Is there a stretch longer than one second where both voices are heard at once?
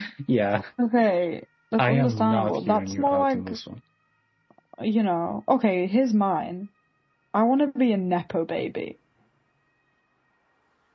Yes, from 1.8 s

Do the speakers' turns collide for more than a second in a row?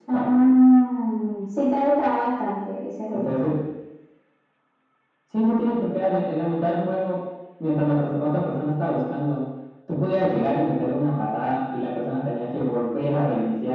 No

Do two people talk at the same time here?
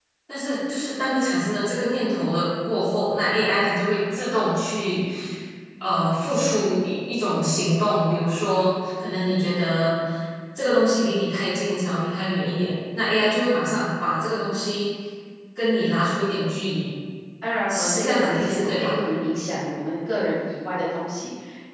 Yes, from 17.7 s

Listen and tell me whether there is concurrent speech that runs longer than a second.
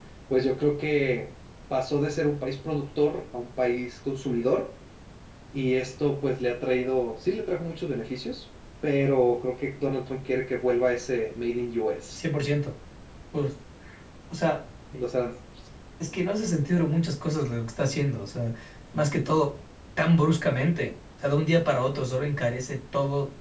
No

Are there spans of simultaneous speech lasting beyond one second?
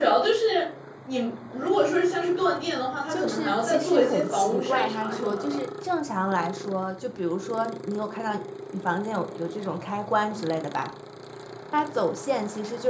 Yes, from 3.1 s

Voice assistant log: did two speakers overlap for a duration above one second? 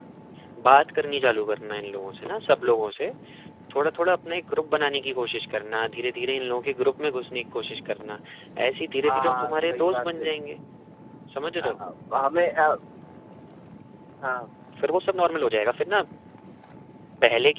Yes, from 9.1 s

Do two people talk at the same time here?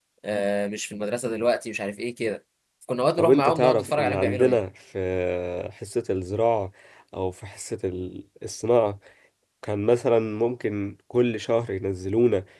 Yes, from 3.2 s

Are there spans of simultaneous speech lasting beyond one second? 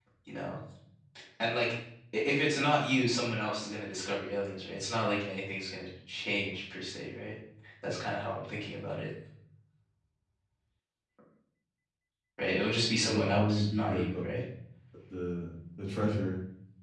Yes, from 13.0 s

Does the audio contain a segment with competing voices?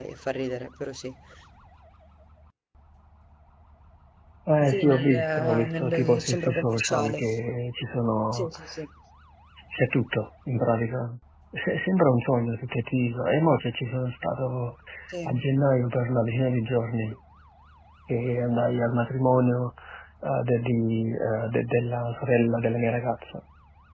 Yes, from 4.6 s

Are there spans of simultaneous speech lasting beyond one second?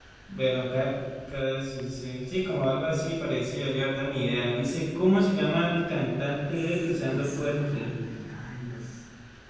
Yes, from 6.5 s

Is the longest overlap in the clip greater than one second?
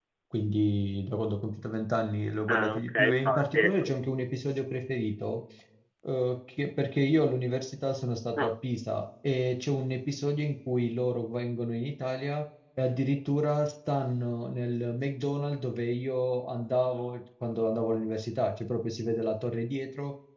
Yes, from 2.5 s

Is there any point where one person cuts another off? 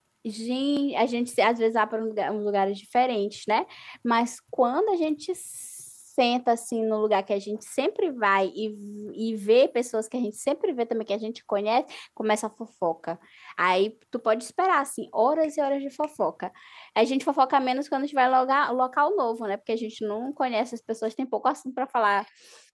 No

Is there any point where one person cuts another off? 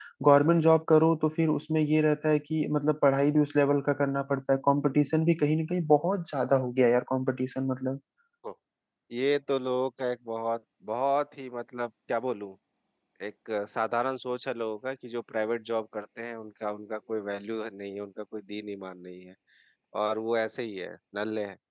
No

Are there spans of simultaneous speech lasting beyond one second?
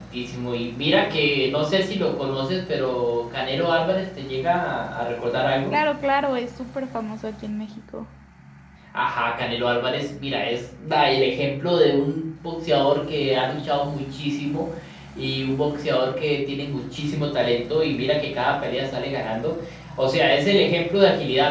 No

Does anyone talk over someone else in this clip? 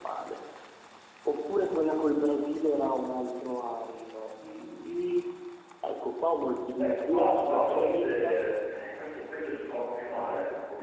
Yes, from 6.8 s

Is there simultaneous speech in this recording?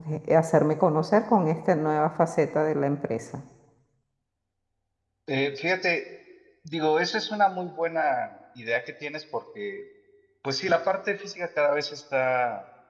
No

